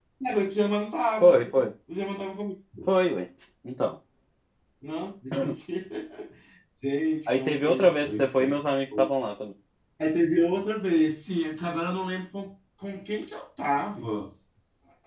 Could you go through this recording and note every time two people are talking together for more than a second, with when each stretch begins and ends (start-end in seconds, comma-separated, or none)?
7.3-8.6